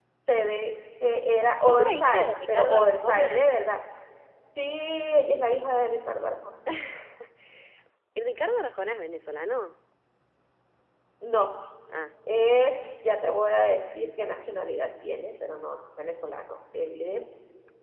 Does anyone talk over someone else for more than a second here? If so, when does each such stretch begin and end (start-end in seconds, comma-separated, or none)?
1.6-3.4